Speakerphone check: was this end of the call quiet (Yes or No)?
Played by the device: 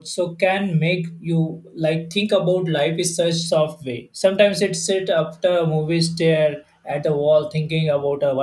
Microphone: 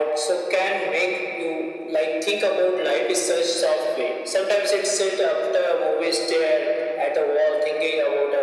Yes